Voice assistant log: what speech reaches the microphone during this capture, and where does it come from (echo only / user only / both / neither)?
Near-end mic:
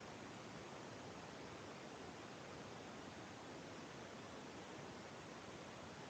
neither